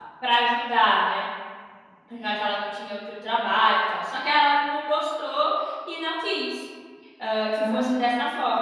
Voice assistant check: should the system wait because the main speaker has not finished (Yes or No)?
Yes